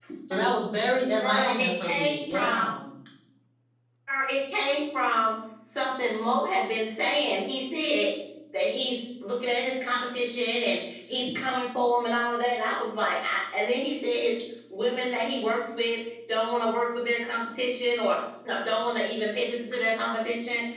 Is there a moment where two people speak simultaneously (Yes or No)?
Yes